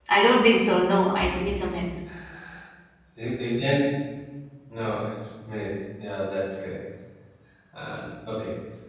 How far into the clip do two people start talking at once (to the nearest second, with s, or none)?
none